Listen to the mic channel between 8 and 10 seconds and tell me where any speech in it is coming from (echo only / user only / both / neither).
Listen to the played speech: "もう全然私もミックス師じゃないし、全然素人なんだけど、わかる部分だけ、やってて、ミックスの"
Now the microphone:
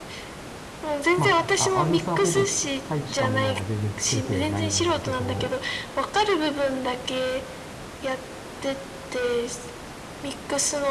echo only